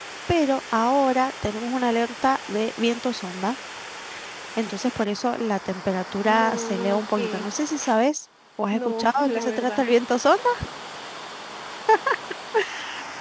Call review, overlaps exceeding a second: present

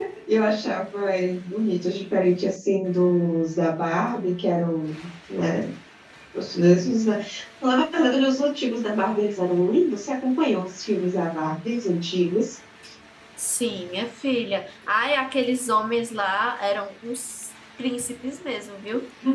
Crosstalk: none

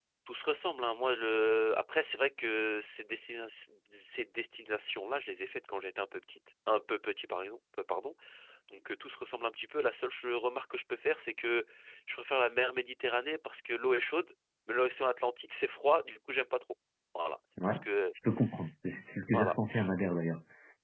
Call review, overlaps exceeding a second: none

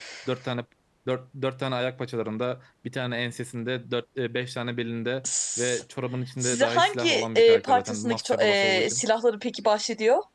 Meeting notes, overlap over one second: present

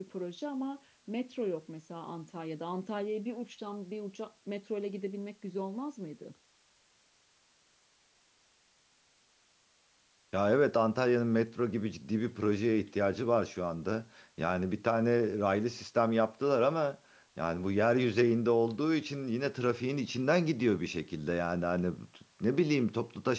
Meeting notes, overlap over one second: none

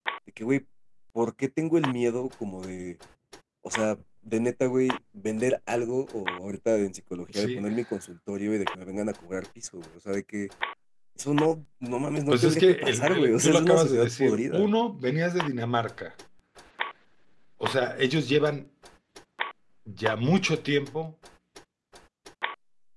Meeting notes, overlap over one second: present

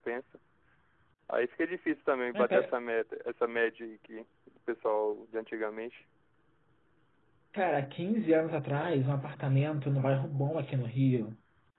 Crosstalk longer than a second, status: none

